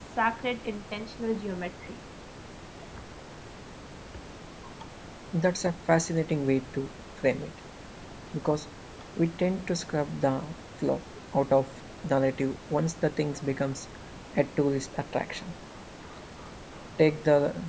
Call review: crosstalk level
none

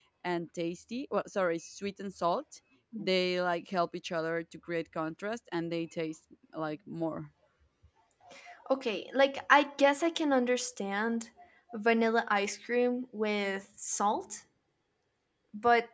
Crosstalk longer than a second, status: none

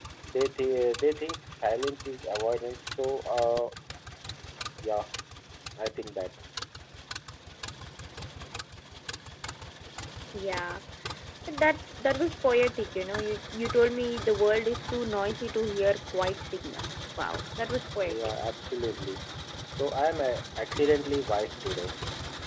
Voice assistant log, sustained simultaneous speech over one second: none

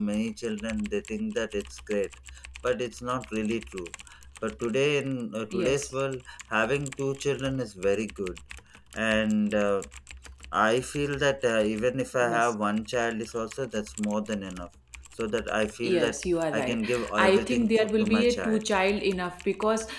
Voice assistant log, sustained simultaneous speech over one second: present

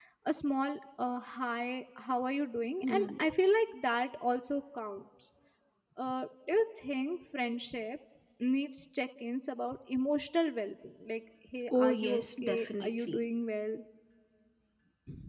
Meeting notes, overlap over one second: present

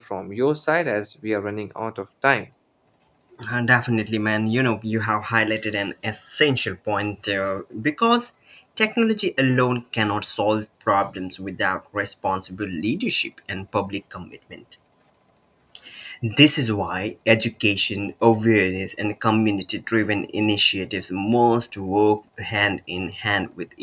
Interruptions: none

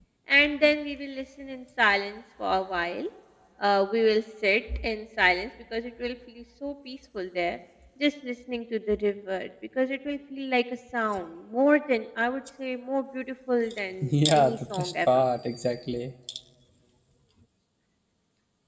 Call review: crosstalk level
present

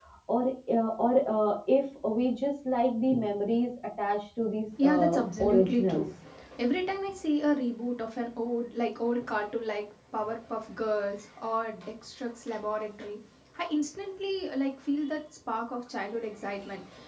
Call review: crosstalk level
present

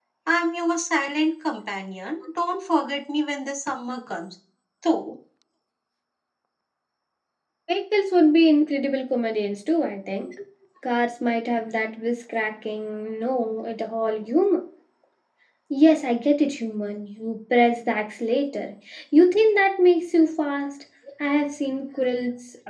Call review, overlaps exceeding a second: none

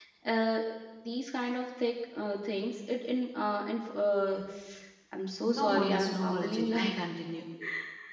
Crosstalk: present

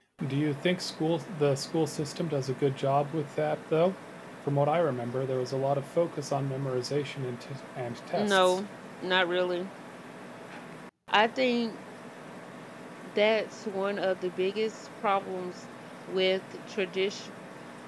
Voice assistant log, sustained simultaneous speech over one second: none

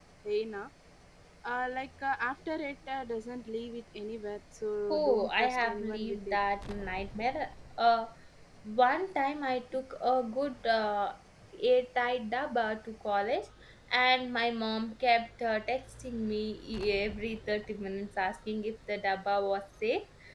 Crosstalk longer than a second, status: present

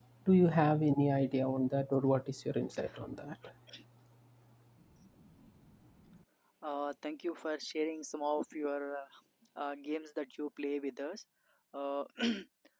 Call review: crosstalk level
none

